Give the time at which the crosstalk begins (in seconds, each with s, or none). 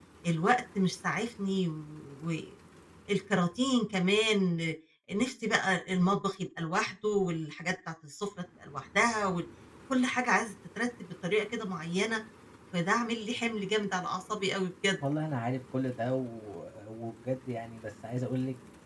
none